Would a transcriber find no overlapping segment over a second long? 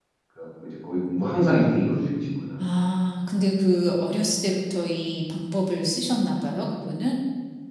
Yes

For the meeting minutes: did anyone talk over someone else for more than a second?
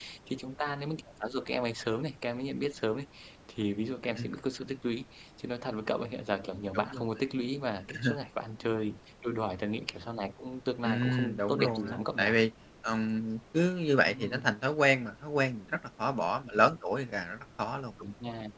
Yes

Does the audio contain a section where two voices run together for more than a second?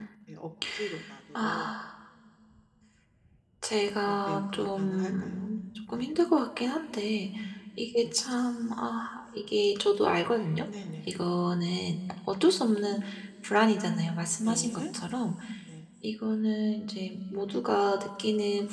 Yes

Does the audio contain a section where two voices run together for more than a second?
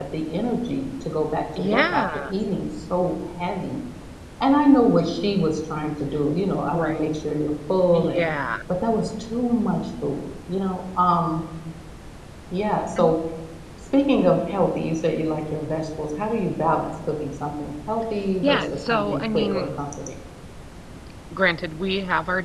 Yes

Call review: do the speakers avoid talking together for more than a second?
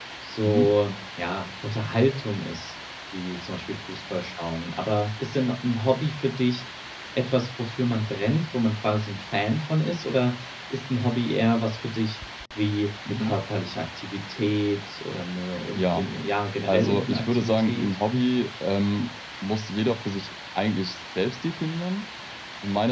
No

